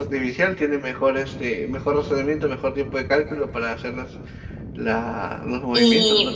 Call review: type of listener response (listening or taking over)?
taking over